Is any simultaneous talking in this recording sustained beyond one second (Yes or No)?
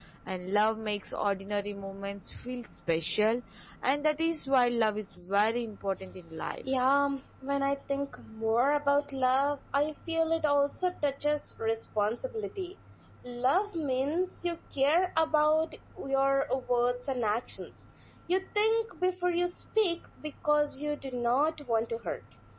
No